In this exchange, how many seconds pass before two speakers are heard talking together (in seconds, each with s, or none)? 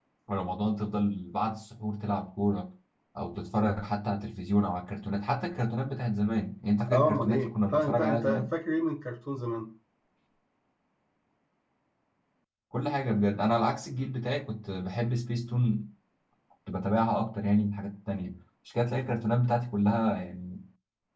6.9 s